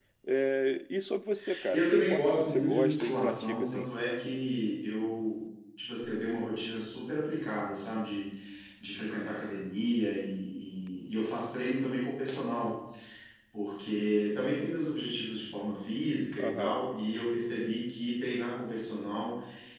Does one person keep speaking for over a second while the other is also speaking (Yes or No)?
Yes